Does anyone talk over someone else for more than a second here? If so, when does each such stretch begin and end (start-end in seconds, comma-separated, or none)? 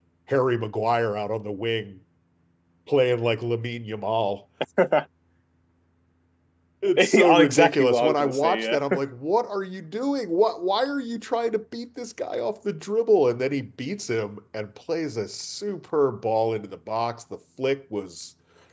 7.0-8.8